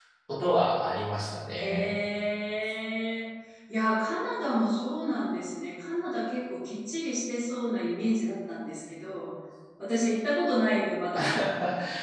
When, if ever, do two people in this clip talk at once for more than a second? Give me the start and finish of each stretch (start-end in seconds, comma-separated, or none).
none